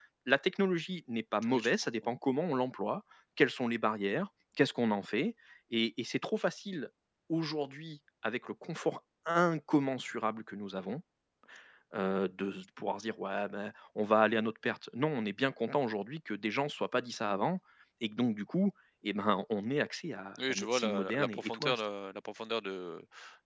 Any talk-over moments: Yes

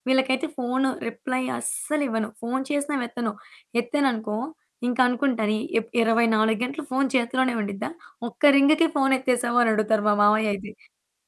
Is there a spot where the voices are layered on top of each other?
No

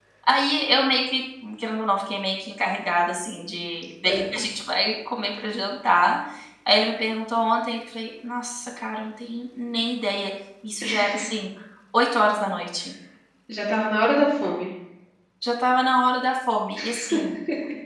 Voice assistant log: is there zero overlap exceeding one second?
Yes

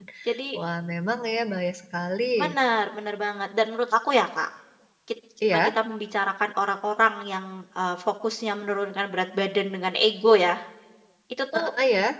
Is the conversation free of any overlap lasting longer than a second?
Yes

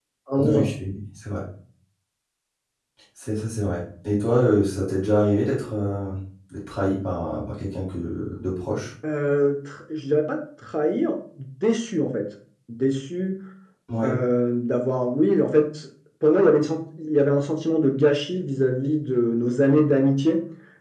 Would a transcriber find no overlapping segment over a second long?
Yes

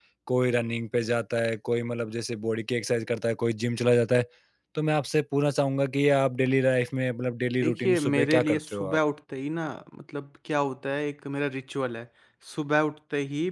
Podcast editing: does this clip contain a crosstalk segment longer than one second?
Yes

